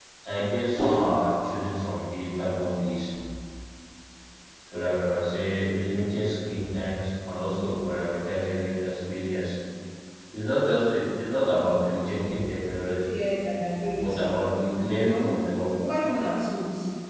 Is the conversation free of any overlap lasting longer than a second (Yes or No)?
Yes